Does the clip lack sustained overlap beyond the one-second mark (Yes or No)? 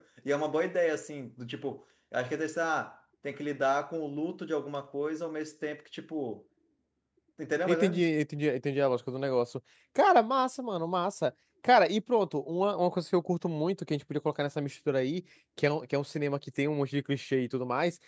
Yes